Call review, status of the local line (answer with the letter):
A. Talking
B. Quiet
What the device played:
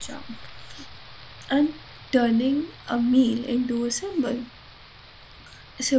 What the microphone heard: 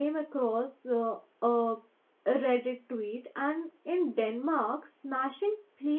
A